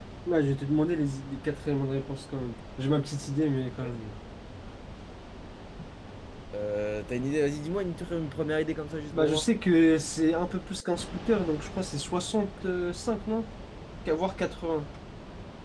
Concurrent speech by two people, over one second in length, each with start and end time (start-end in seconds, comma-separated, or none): none